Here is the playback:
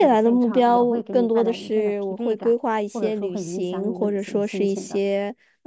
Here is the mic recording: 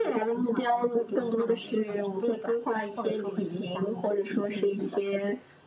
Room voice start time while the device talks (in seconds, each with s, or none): none